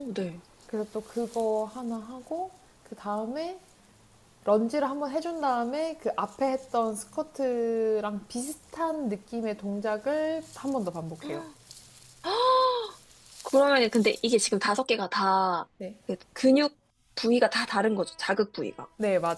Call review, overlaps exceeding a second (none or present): none